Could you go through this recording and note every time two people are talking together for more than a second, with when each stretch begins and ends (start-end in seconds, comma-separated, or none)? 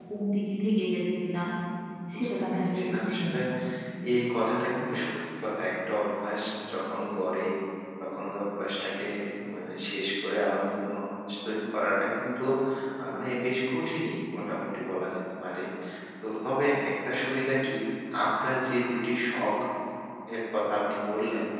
2.1-3.4